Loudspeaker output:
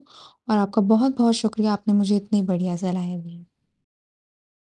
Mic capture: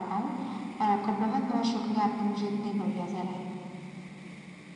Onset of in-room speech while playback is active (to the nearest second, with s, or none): none